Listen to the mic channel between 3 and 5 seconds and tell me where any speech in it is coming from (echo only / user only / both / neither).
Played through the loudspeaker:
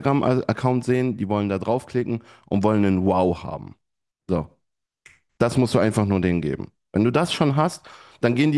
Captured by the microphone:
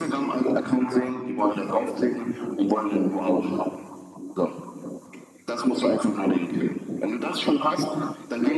echo only